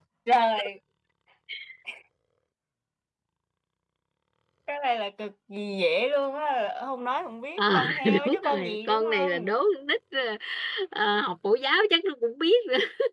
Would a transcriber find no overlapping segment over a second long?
No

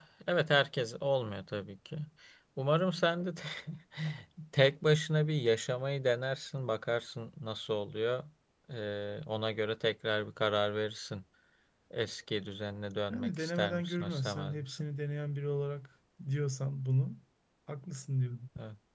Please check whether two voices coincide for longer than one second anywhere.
Yes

